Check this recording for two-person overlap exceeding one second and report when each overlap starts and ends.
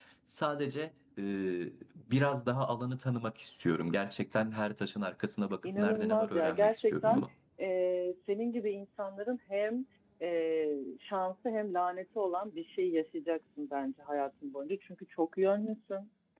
5.6-7.2

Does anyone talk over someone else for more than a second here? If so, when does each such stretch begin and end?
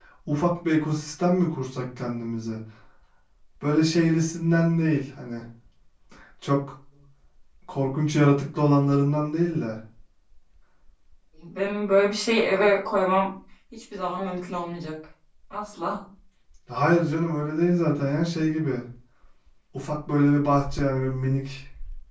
none

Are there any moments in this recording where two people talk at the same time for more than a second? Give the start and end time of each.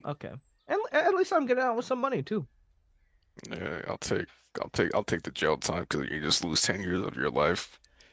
none

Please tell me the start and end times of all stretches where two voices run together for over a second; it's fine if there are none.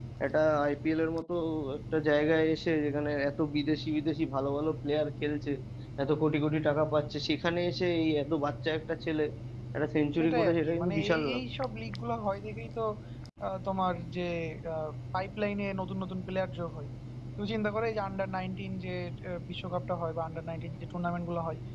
10.2-11.4

